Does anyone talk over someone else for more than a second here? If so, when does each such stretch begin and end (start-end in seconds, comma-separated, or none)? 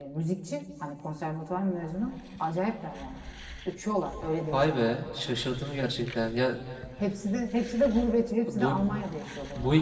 none